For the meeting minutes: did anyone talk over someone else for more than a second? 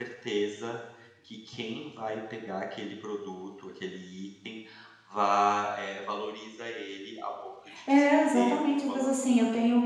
Yes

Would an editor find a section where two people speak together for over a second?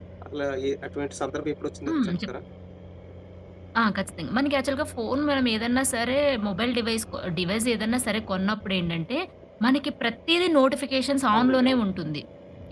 No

